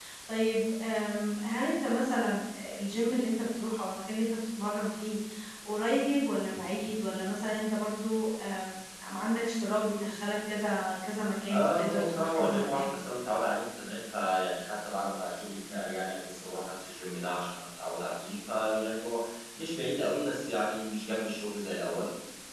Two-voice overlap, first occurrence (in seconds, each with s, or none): 11.5 s